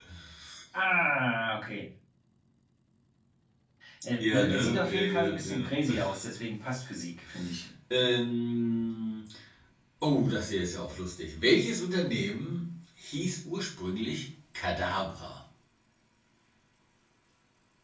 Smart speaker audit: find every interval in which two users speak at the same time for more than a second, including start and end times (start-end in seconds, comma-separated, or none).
4.2-6.0